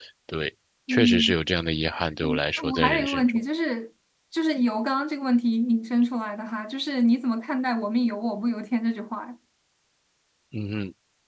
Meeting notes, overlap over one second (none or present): present